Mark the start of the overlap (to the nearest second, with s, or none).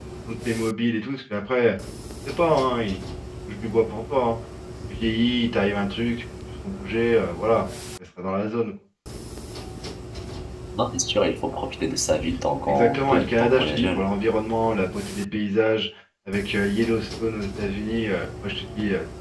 13 s